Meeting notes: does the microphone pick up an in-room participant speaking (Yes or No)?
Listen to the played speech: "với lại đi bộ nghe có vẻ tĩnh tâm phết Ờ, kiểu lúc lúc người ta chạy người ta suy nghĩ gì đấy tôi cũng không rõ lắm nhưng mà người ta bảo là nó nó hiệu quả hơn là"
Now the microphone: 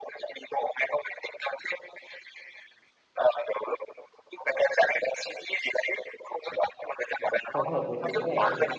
Yes